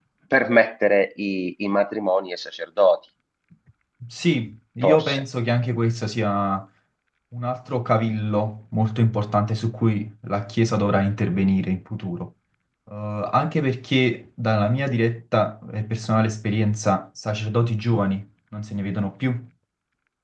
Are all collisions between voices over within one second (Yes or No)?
Yes